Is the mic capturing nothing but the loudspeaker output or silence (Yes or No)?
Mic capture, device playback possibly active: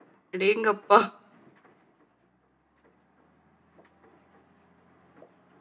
No